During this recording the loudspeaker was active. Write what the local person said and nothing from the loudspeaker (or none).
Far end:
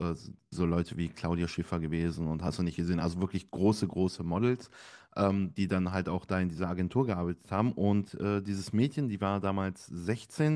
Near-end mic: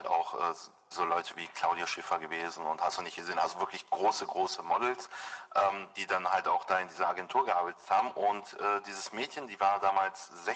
none